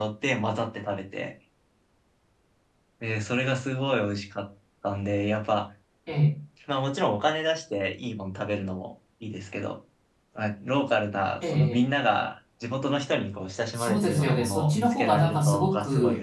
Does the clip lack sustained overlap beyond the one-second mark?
No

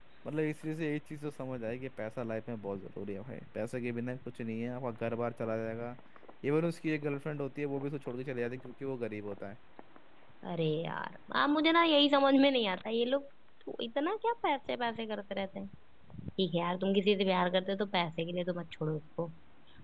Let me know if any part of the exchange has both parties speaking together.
No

